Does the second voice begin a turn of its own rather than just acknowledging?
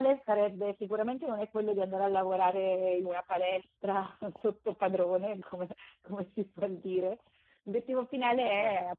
No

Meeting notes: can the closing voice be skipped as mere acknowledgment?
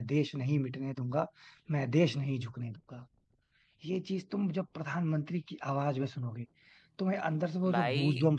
No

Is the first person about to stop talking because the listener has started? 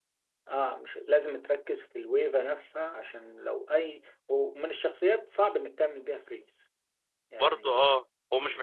Yes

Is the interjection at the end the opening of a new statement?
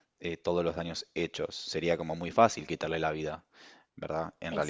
No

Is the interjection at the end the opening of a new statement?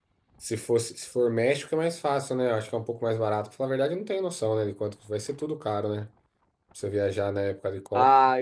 Yes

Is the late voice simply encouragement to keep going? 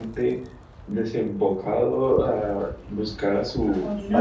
No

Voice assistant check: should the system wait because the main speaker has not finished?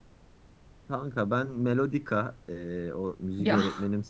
Yes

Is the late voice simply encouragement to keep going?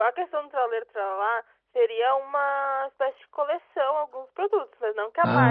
Yes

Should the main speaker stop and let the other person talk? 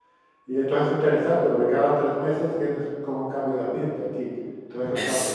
Yes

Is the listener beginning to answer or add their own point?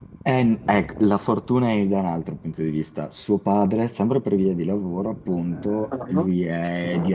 No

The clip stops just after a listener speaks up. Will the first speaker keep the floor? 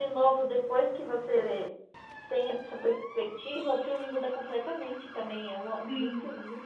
No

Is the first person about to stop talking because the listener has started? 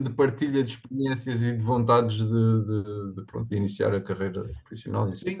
Yes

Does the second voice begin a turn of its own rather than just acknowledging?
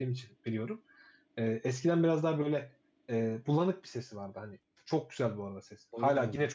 No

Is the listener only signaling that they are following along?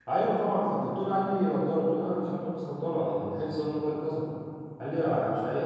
Yes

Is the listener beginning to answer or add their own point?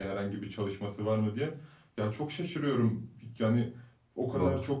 No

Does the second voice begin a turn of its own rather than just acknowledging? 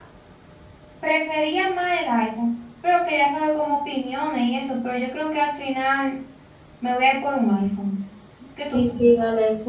Yes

